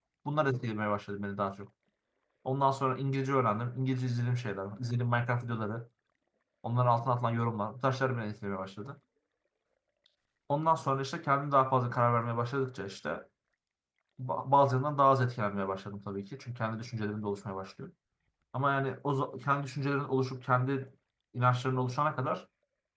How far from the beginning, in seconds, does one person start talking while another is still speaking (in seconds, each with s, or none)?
none